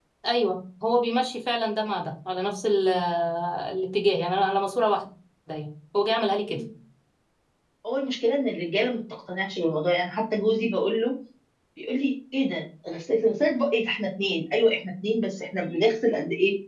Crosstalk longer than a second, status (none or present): none